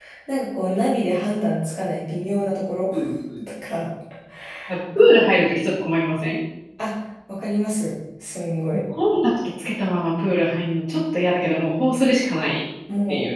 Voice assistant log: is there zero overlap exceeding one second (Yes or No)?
Yes